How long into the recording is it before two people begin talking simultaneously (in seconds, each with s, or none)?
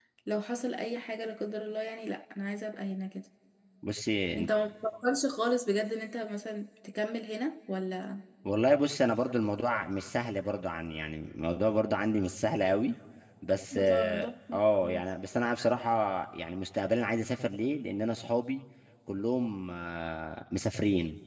13.7 s